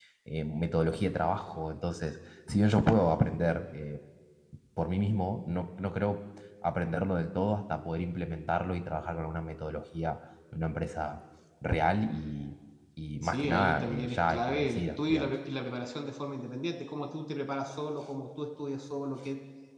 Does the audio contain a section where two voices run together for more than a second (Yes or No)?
Yes